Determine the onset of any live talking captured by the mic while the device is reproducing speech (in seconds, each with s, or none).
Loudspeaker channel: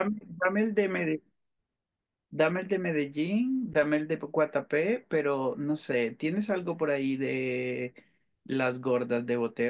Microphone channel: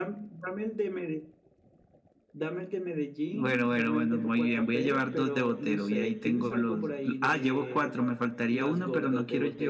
3.3 s